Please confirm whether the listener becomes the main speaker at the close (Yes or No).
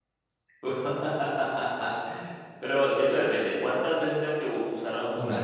No